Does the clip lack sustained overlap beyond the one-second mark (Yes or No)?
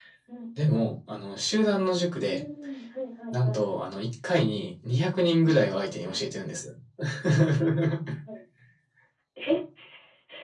Yes